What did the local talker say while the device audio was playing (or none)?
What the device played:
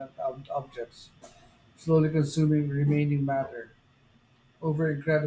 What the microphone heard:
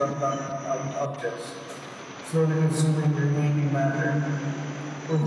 none